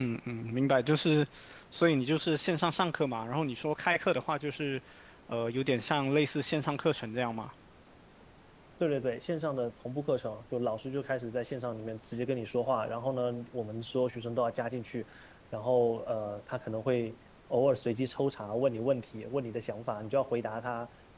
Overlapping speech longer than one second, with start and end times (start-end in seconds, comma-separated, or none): none